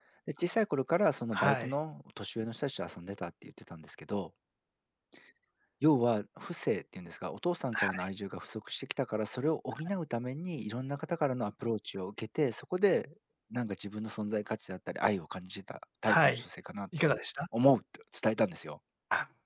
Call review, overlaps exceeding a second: none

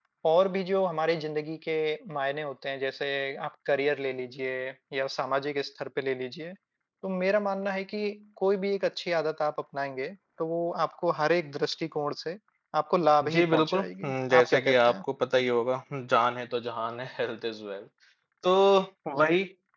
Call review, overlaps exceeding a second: present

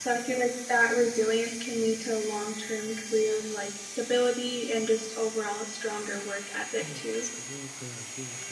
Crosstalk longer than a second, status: none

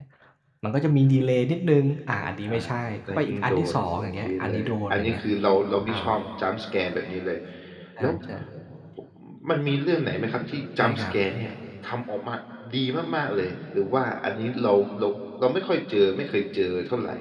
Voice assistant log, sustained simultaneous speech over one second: present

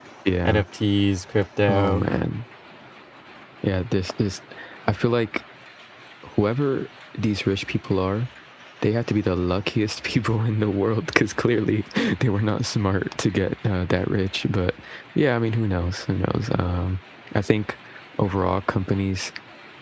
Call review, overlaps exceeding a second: none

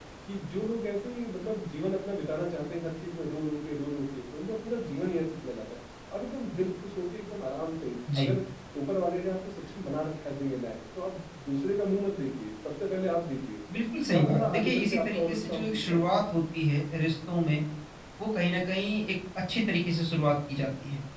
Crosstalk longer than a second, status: present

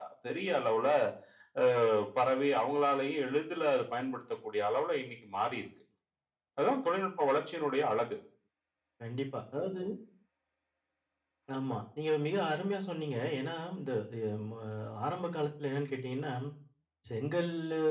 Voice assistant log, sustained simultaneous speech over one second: none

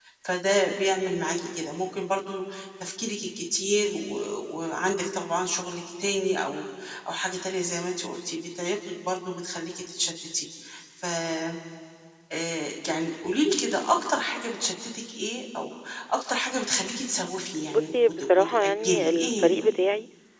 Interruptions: present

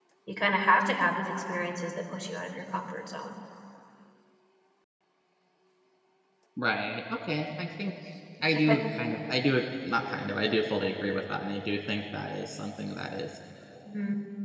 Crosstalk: none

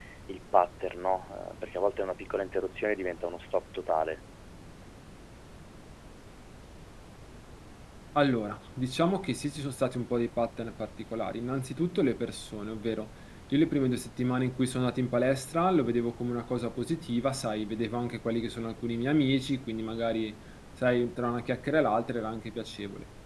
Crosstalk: none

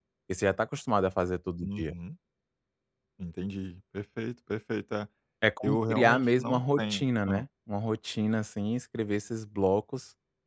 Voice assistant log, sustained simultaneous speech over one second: present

